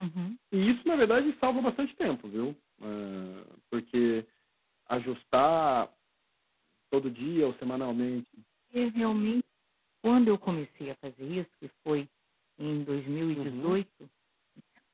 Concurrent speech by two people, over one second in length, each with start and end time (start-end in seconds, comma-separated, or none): none